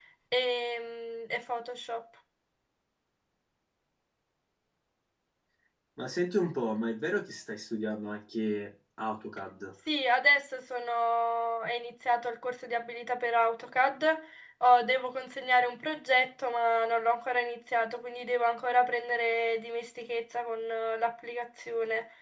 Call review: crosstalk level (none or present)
none